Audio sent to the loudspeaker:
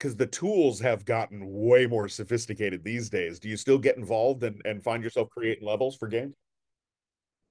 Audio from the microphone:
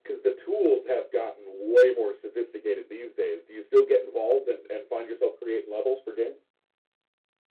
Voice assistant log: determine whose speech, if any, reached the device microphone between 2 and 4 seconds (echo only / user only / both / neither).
echo only